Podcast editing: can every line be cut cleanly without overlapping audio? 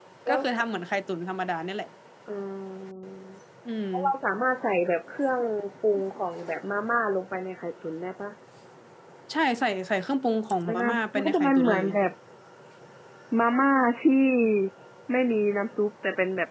No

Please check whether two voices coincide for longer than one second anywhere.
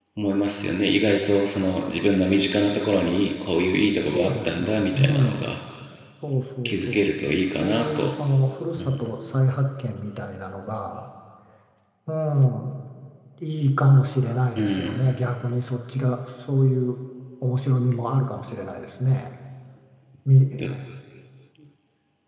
Yes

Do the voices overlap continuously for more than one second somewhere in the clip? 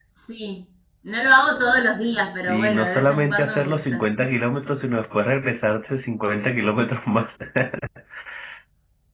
Yes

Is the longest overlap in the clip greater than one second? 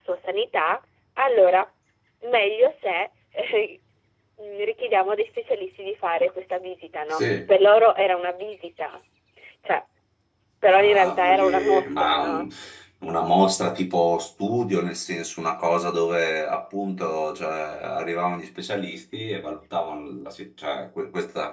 Yes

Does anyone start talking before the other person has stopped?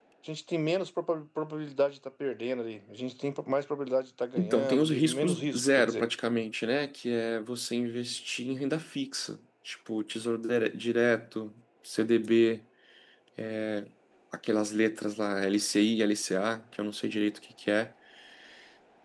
Yes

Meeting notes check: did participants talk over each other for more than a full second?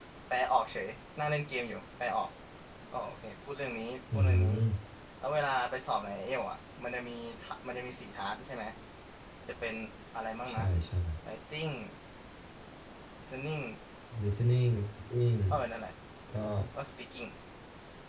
No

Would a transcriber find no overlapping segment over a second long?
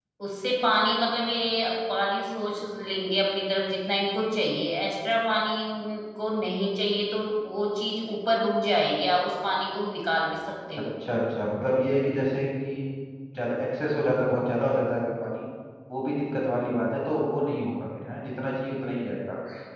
Yes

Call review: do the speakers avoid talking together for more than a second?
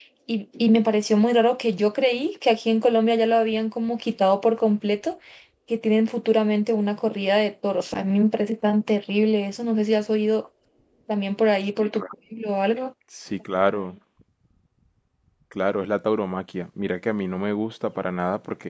Yes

